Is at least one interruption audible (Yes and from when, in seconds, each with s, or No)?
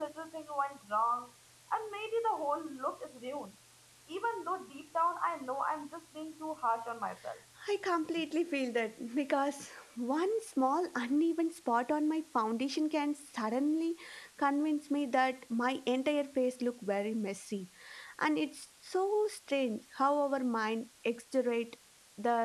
No